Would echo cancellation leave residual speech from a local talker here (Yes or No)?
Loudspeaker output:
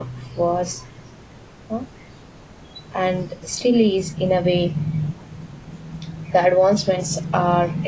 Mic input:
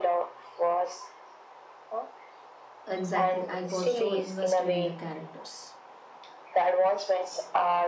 Yes